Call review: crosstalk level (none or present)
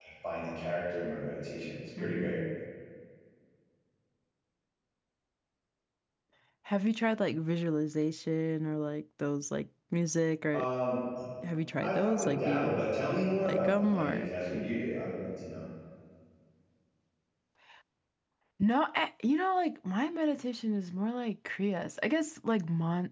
present